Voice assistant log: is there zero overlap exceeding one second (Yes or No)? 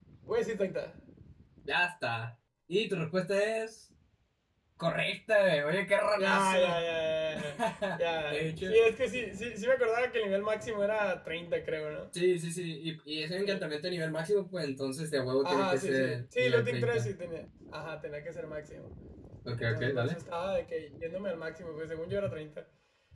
No